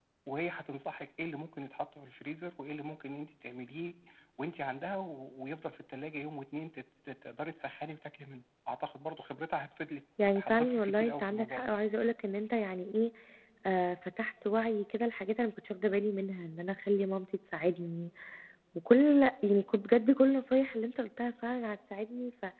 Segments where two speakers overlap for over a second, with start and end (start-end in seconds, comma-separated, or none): 10.4-11.7